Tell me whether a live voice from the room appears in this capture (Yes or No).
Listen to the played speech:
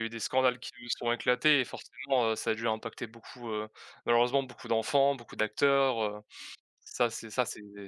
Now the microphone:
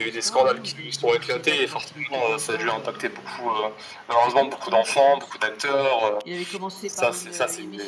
Yes